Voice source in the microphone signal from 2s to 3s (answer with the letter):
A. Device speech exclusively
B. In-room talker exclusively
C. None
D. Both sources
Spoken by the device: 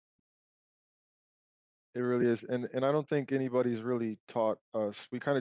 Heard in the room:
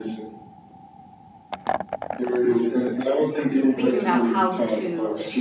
A